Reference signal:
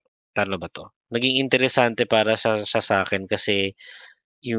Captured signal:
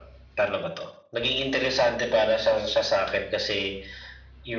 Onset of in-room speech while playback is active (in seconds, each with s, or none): none